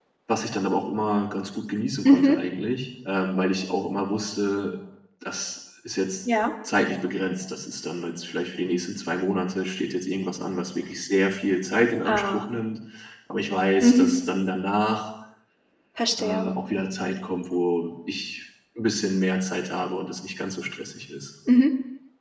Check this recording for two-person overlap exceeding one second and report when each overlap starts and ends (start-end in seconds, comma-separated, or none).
none